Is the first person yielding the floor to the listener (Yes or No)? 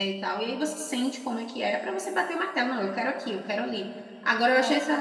No